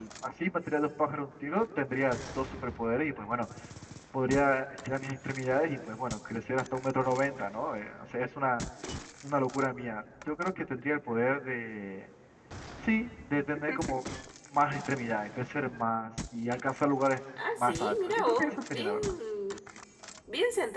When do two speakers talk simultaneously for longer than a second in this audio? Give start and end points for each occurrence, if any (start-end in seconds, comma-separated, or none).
17.6-19.1